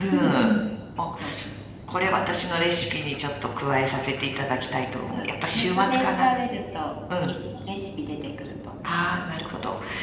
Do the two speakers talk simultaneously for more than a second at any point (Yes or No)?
Yes